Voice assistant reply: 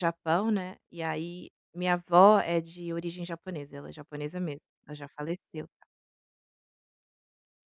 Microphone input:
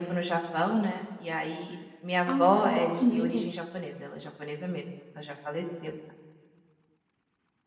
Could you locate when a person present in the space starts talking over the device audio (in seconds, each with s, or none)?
2.3 s